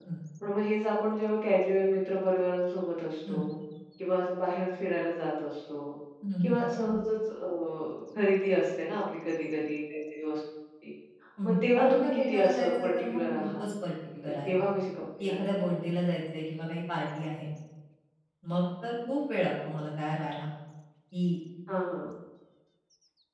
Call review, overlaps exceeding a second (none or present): present